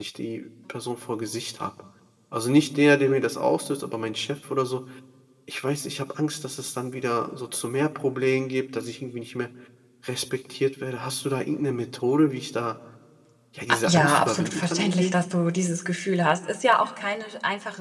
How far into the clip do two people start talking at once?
13.7 s

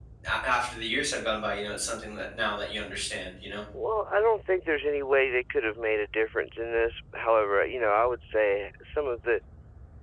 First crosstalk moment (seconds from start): none

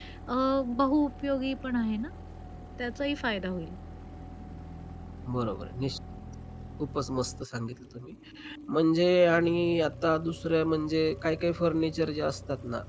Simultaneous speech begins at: none

